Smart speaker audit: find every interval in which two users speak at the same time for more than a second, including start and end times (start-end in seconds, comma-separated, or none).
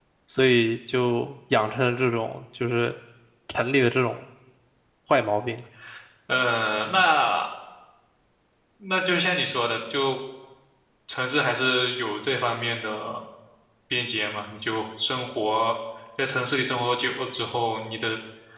none